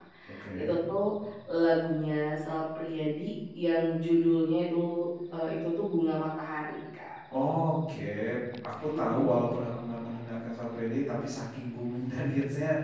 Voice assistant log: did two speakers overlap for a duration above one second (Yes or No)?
No